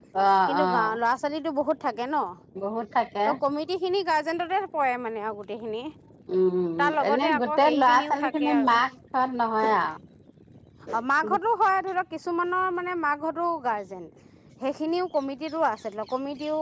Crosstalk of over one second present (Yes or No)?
Yes